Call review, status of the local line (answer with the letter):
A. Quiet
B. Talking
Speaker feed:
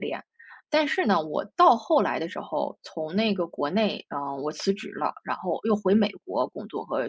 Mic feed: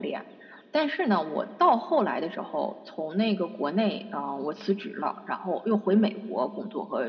A